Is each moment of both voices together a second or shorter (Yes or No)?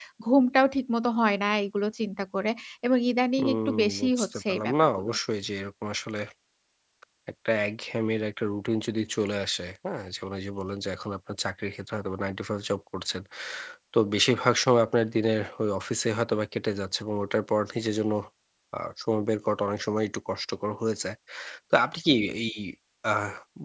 No